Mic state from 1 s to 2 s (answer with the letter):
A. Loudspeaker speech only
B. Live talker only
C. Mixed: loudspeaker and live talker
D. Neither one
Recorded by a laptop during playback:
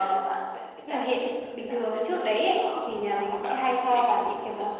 A